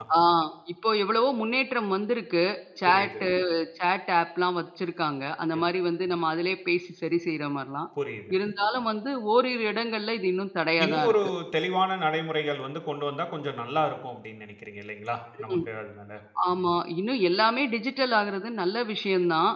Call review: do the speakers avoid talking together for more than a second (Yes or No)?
Yes